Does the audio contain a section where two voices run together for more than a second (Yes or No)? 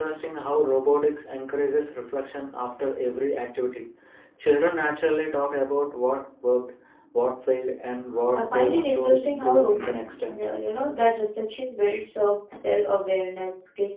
Yes